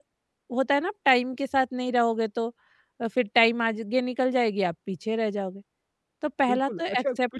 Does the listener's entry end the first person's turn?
Yes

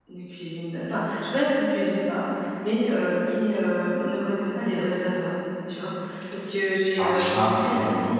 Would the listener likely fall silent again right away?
Yes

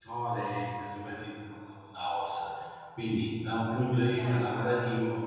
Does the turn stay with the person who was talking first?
Yes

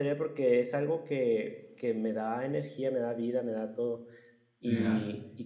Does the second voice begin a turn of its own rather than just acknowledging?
No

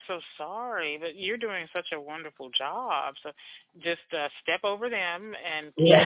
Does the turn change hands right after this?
No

